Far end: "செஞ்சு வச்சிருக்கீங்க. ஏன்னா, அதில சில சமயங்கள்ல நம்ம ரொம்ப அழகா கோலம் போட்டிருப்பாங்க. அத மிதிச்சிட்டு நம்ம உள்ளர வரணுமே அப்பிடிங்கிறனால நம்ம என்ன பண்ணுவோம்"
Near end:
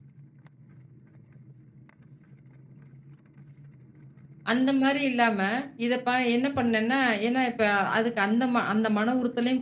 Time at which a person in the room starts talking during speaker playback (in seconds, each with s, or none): 4.5 s